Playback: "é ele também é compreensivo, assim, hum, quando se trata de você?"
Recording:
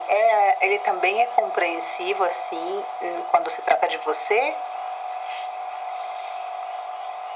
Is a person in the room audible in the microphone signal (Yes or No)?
No